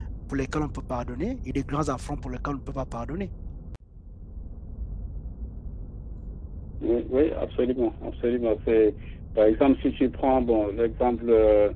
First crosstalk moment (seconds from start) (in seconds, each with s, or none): none